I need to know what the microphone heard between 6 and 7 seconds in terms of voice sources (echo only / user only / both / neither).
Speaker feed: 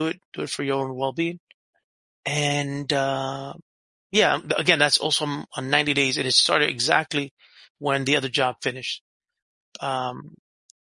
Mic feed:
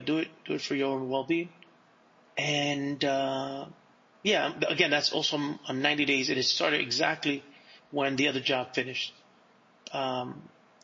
echo only